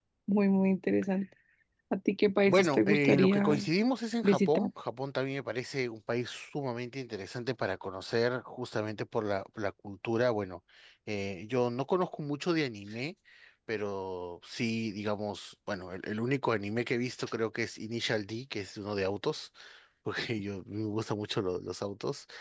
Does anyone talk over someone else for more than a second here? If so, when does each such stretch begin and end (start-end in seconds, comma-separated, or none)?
2.5-3.7